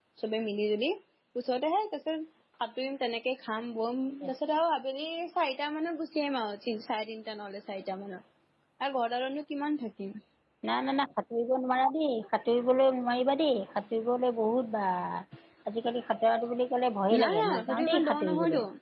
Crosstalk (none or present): present